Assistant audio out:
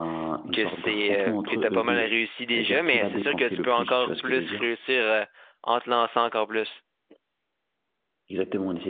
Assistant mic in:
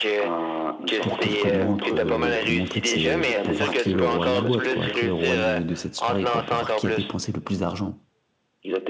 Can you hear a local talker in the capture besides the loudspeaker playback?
Yes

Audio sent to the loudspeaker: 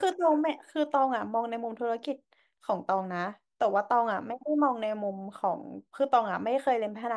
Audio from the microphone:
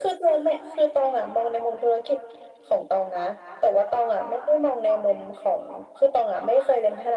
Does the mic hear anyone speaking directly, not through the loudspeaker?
No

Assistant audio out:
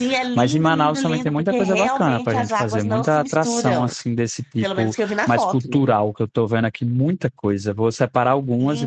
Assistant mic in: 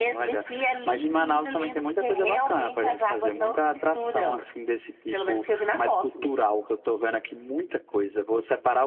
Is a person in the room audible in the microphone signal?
No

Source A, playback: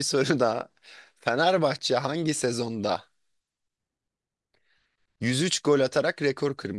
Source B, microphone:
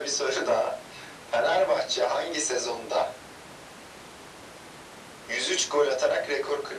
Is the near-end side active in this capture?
No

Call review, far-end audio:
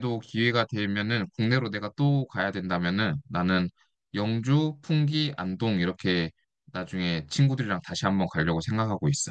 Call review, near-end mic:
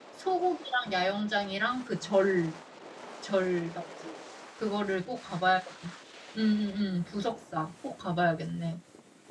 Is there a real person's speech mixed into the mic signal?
Yes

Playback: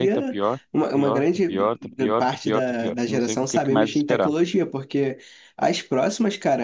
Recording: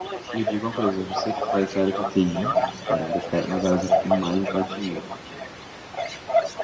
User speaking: Yes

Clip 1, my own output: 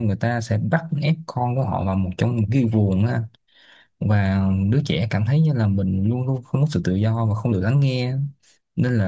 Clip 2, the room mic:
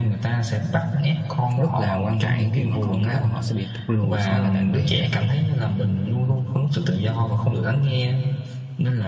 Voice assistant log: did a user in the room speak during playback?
Yes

